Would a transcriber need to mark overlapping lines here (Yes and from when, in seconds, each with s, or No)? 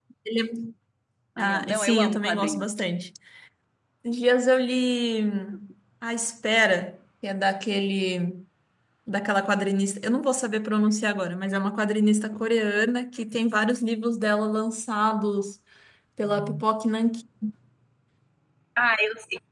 Yes, from 1.4 s